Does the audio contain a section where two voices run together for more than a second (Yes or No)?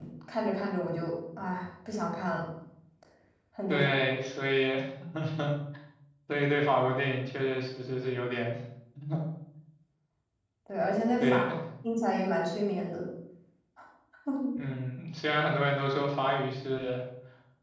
No